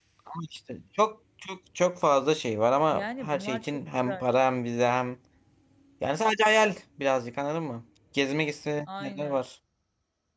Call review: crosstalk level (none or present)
present